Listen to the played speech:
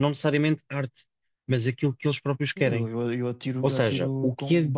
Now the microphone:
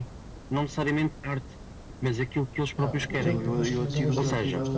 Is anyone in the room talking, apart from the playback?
Yes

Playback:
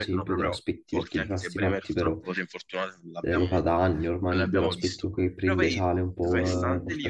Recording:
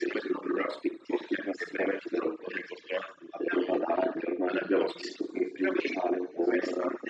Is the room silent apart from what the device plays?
Yes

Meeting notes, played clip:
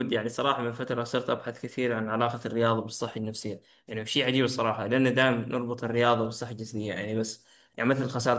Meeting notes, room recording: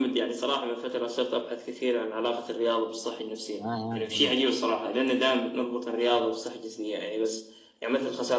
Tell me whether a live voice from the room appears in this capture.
Yes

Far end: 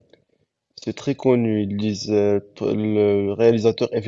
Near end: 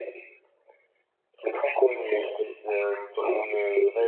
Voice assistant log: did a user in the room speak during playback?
No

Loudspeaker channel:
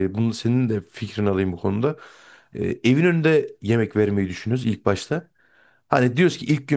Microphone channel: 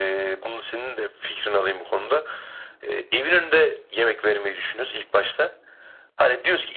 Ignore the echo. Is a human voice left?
No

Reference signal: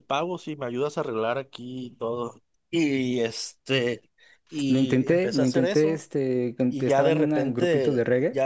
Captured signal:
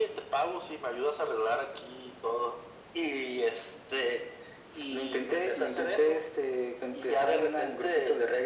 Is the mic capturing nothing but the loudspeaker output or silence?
Yes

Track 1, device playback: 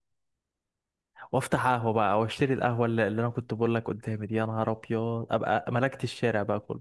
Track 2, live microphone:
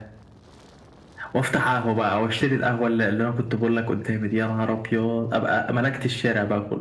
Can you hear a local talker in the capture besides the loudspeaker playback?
No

